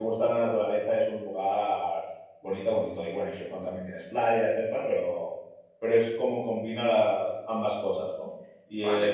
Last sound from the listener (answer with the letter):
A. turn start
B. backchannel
A